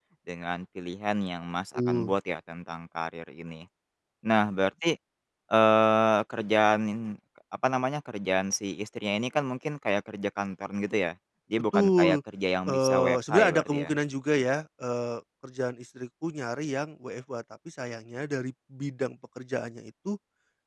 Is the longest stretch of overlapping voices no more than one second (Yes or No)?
No